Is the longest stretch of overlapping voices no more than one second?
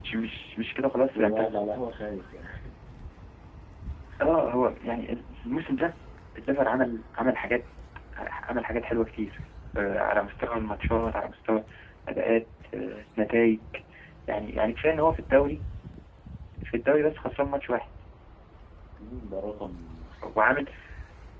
Yes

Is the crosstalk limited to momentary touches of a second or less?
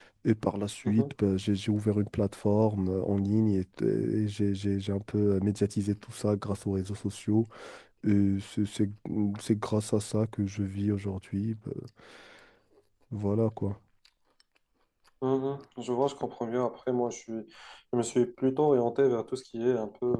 Yes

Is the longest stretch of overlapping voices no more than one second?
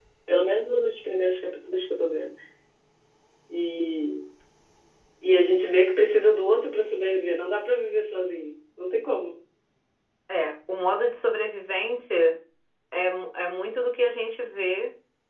Yes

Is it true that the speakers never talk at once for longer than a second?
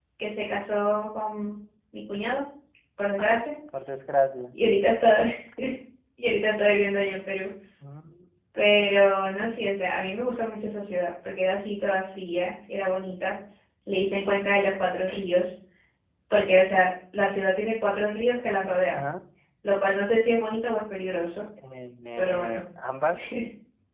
Yes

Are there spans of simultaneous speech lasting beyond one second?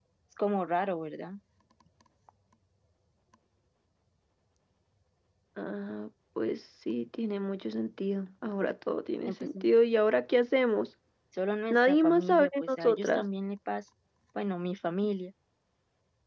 Yes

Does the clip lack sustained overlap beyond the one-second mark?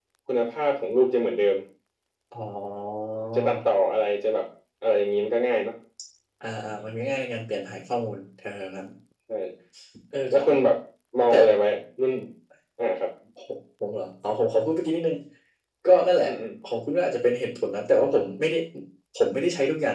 Yes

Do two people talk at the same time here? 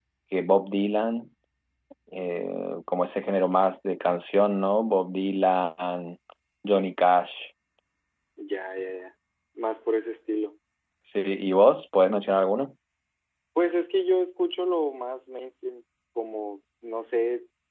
No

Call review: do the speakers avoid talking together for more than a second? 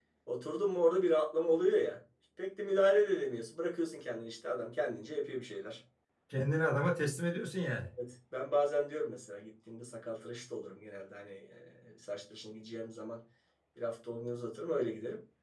Yes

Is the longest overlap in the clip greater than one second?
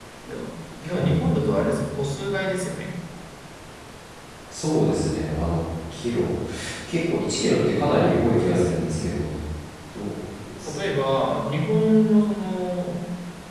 No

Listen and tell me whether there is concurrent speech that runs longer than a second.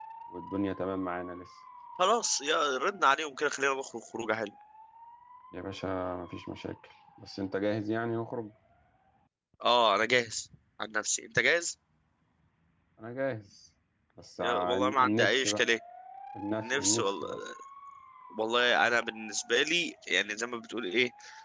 Yes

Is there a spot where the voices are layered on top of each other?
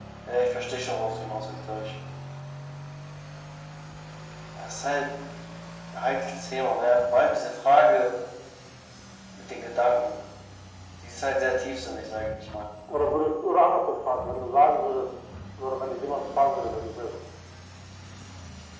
No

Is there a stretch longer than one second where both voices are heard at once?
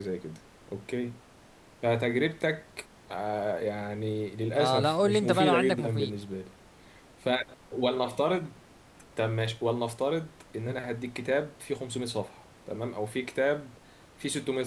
Yes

